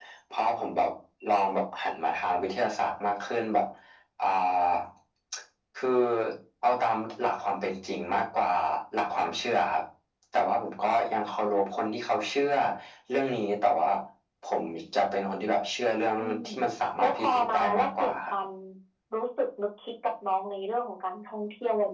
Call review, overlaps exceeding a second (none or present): present